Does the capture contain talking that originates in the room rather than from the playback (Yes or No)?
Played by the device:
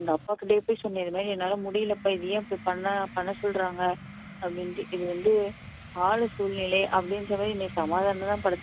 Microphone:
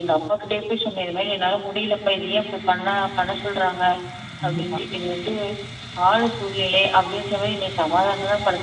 Yes